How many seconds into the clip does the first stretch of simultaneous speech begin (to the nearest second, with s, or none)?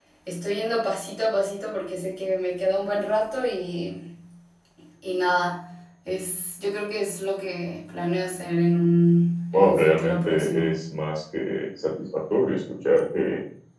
10 s